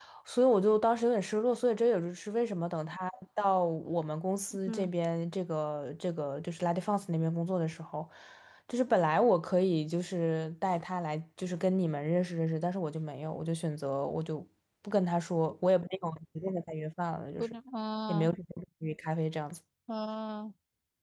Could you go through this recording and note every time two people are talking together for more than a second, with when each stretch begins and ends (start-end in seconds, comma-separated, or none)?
none